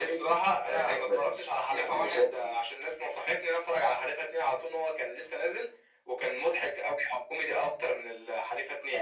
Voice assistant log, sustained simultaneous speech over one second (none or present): present